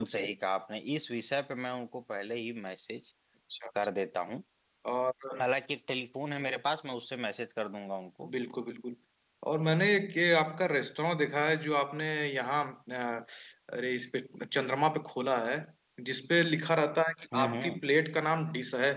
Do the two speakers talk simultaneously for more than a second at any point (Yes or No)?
No